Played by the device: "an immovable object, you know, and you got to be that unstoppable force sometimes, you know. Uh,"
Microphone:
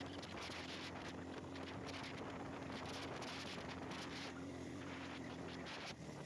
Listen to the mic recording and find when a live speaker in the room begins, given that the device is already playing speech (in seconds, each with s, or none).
none